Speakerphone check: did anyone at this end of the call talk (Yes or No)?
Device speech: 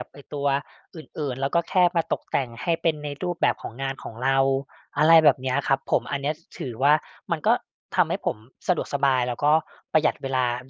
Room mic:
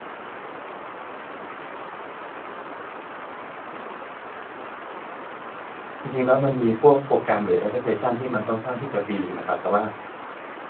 Yes